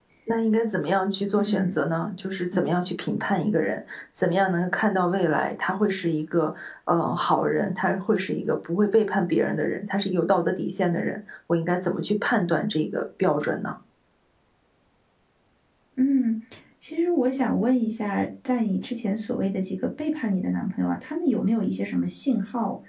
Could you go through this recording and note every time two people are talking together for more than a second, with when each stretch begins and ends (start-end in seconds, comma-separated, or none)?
none